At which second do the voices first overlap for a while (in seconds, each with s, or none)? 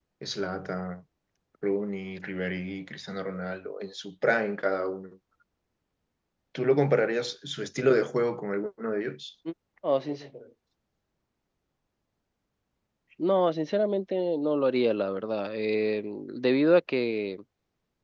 none